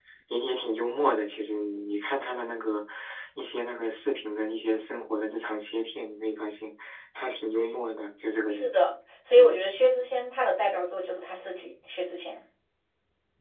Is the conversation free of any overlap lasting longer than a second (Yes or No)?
Yes